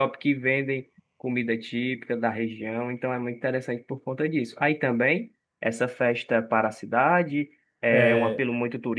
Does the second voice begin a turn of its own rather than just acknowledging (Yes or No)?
No